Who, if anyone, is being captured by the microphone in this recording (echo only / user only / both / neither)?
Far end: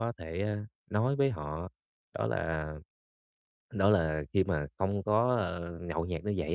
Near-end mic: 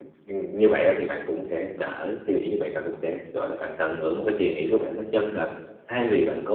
user only